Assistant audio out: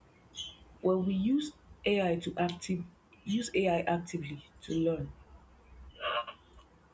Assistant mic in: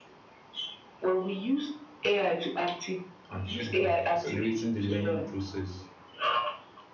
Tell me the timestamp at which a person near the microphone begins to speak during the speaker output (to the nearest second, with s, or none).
3 s